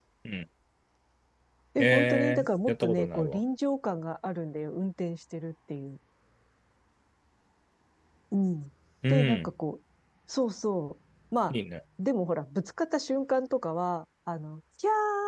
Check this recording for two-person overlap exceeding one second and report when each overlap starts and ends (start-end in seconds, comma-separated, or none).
1.8-3.4